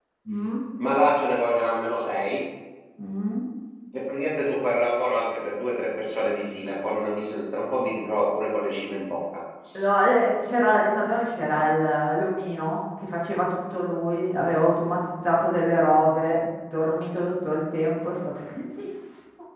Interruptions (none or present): none